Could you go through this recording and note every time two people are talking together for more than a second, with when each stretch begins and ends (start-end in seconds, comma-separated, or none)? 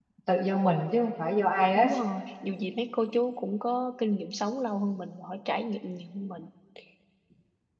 none